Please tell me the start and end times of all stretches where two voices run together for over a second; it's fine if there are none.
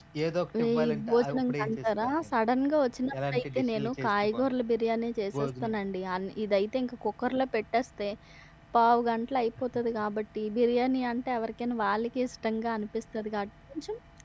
0.7-2.3, 3.3-4.5

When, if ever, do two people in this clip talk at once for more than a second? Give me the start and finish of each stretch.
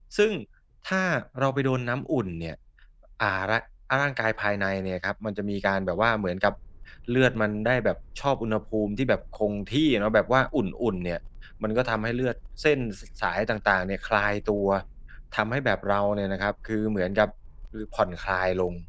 none

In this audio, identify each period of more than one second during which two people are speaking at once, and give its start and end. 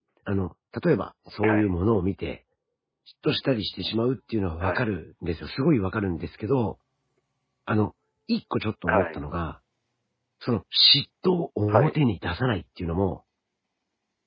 none

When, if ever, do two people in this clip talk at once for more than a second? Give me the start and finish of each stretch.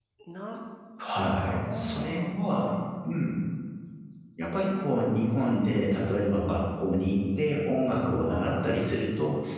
1.0-2.3

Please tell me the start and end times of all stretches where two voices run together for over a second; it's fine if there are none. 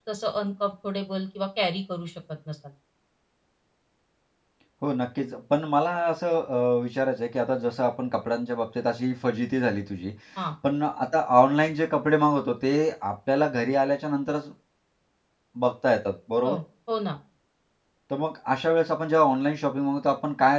none

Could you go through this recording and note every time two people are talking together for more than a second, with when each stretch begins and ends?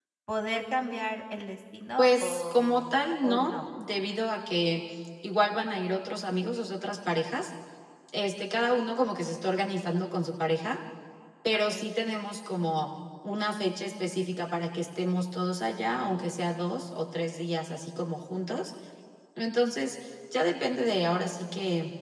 2.0-3.6

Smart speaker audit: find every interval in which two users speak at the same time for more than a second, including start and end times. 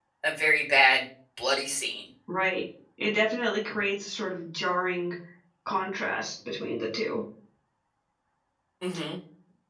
none

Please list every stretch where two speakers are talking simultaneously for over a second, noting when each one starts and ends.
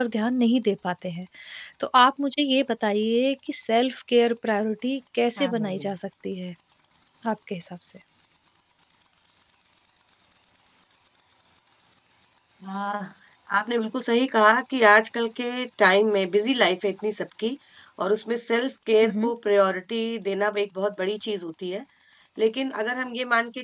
none

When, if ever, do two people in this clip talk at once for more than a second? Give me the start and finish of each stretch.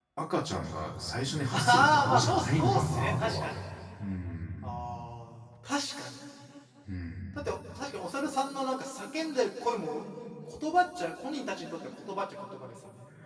1.5-3.5

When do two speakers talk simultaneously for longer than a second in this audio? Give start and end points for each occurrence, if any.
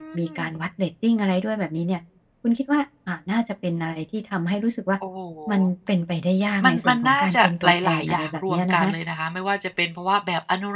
6.6-8.9

